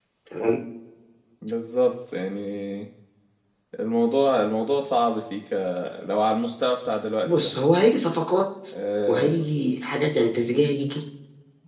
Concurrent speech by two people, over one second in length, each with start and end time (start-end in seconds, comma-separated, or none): none